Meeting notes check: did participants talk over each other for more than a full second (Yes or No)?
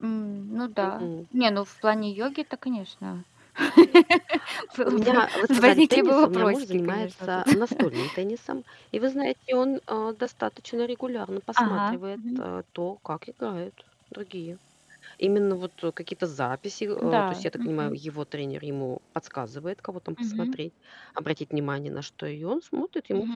Yes